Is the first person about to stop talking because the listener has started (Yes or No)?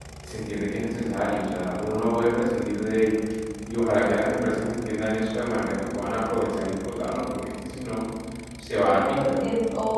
Yes